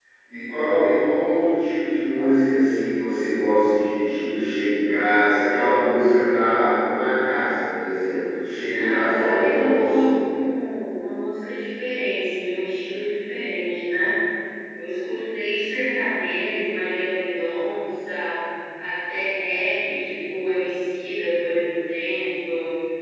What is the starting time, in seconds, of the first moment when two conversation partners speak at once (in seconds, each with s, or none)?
8.7 s